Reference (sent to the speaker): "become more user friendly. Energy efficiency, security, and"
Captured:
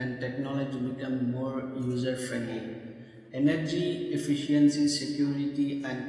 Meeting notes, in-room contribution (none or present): none